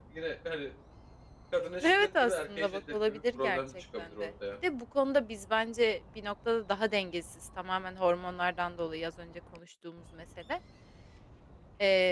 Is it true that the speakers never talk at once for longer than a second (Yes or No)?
No